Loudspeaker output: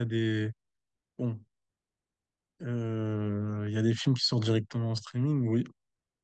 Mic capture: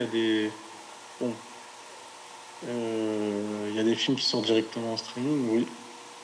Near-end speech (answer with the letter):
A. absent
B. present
A